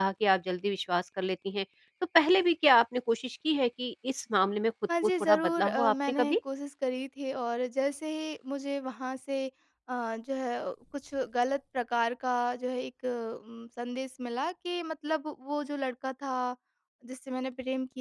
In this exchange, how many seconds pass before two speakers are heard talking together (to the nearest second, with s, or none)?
5 s